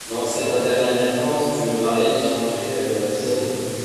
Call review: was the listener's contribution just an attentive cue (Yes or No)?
No